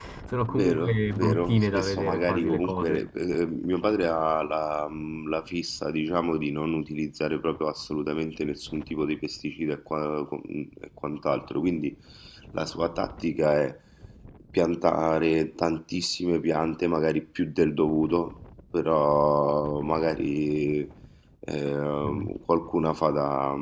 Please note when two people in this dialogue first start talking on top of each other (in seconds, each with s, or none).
0.5 s